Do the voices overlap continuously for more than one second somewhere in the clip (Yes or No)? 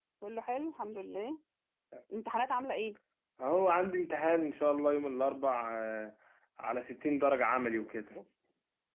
No